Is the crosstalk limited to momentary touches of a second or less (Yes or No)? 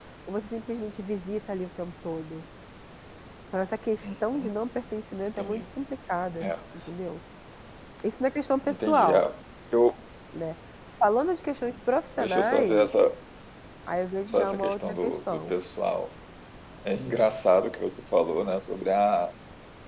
No